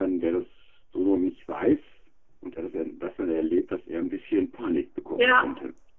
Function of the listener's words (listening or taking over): taking over